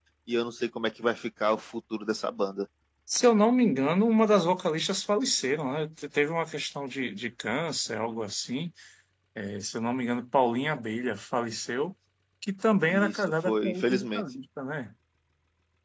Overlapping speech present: Yes, from 12.9 s

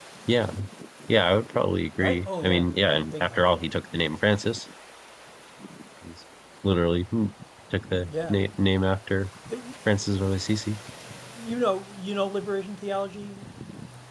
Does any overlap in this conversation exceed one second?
Yes, from 2.0 s

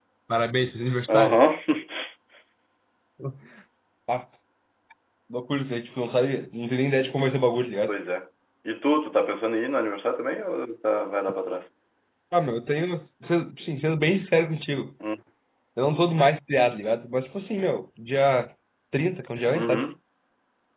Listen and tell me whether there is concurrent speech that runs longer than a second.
No

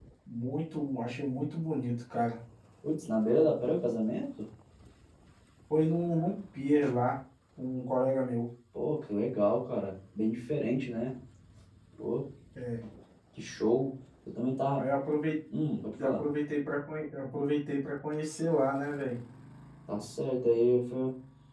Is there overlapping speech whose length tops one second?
No

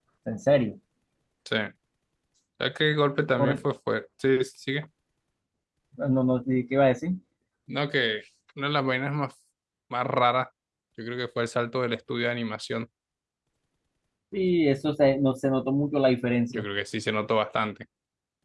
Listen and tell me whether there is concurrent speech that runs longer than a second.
No

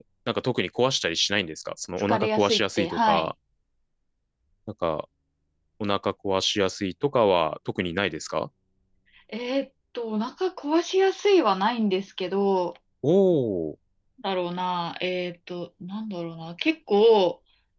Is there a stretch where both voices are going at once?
Yes, from 2.1 s

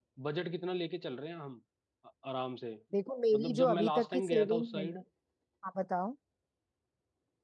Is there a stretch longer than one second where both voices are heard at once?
Yes, from 3.3 s

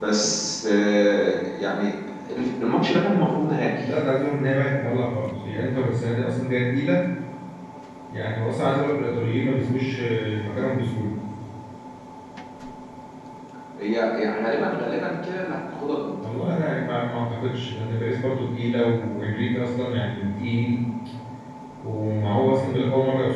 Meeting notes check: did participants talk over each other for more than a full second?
No

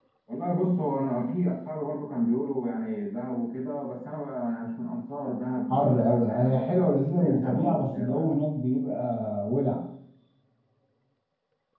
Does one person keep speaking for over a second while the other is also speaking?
Yes, from 5.7 s

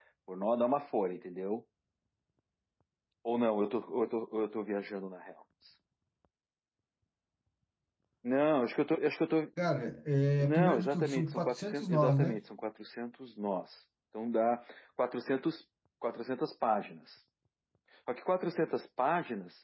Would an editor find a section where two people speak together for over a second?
Yes, from 10.4 s

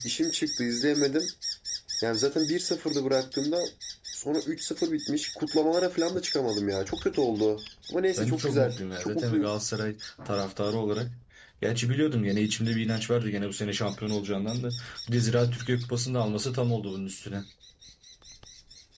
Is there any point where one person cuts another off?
Yes, from 8.2 s

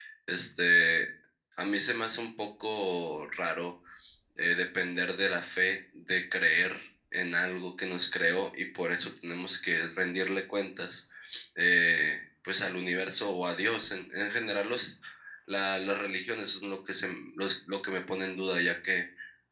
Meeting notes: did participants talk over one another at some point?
No

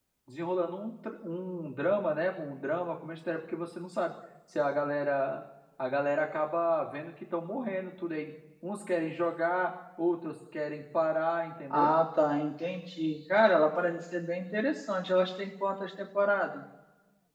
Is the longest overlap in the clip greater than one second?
No

